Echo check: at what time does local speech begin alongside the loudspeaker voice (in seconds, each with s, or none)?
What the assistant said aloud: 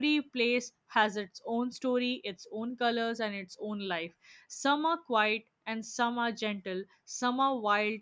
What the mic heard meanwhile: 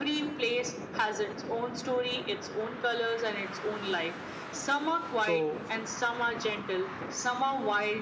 5.2 s